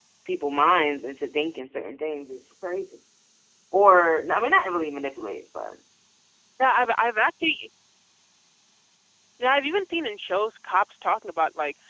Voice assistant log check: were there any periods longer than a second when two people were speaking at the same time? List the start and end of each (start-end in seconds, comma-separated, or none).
none